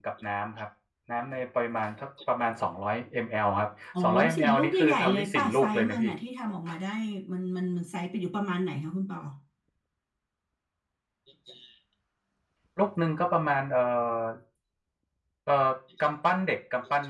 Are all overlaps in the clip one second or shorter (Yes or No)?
No